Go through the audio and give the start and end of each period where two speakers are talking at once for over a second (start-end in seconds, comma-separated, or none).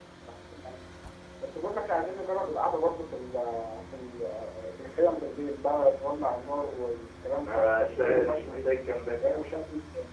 7.4-8.7